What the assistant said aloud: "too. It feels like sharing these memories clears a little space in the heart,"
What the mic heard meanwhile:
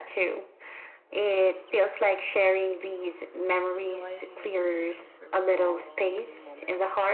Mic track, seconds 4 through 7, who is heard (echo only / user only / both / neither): both